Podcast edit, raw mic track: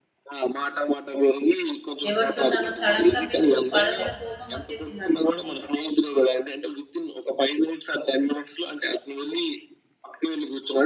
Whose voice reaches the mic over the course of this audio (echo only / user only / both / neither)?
both